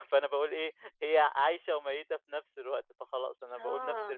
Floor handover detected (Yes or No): Yes